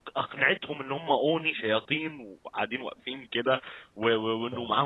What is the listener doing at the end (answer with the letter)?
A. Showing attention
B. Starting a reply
A